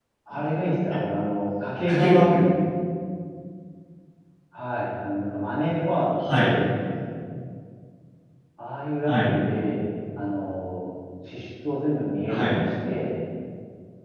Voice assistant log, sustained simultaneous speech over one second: none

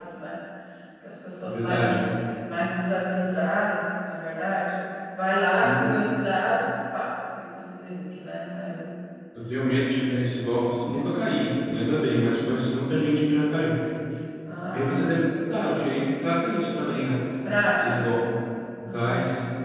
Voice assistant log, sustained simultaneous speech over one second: none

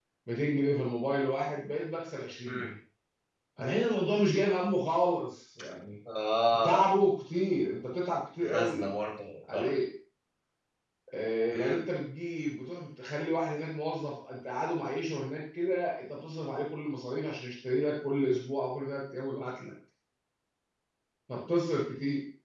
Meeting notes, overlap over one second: none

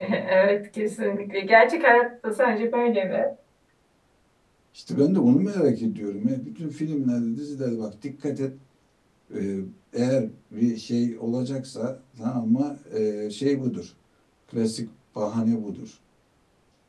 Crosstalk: none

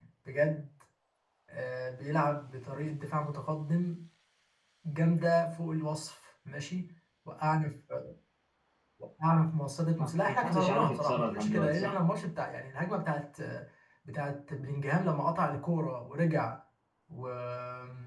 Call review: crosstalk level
present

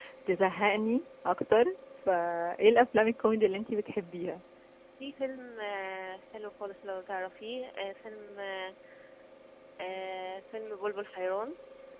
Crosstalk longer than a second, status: none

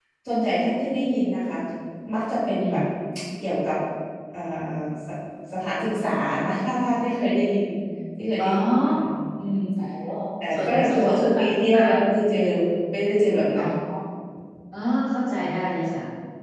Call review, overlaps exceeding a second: present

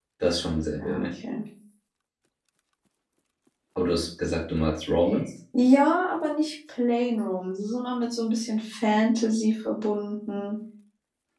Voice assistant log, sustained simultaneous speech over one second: none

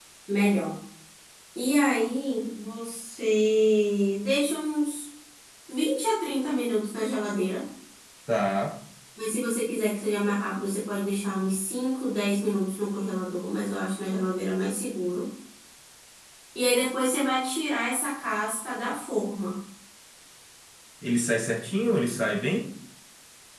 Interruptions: none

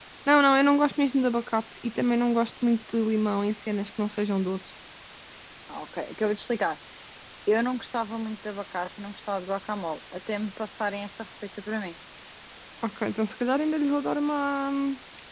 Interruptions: none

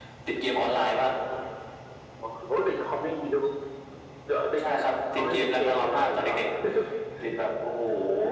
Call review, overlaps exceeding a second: present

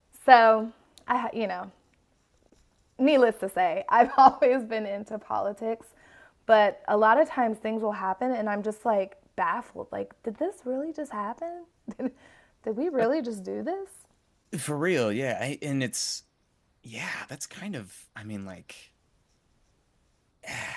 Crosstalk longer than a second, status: none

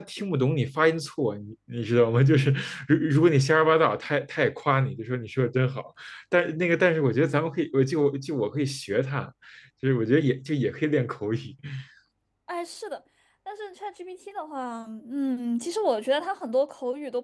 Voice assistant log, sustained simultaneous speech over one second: none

